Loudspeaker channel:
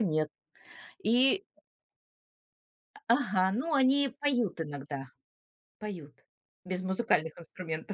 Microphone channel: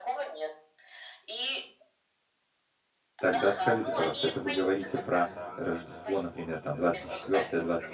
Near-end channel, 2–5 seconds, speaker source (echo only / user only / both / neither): both